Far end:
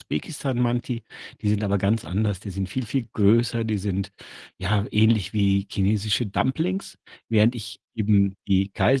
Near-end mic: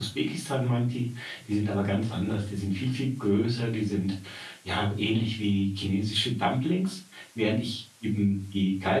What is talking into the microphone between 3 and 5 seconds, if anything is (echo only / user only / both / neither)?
echo only